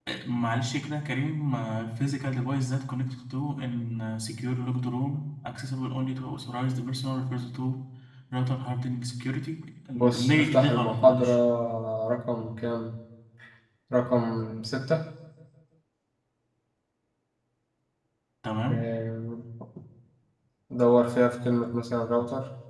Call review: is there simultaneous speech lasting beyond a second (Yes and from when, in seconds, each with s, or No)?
Yes, from 9.9 s